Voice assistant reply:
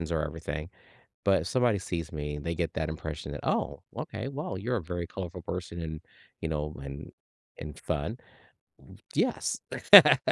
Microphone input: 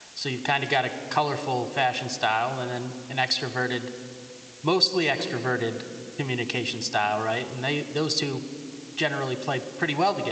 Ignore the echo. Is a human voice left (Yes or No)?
Yes